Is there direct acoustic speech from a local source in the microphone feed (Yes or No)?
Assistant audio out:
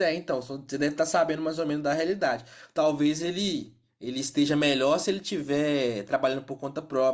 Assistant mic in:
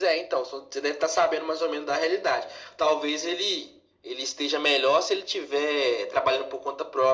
No